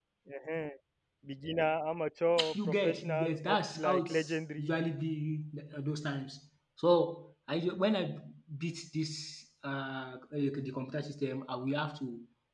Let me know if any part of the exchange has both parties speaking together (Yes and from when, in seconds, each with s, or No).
Yes, from 2.4 s